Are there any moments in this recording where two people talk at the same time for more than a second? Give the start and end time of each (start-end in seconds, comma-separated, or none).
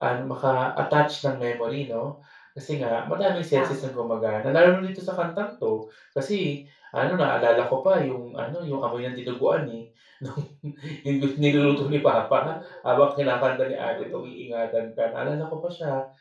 none